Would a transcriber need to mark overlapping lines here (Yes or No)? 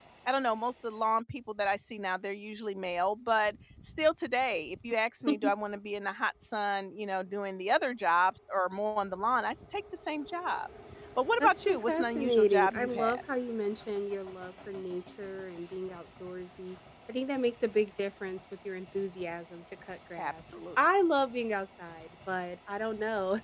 Yes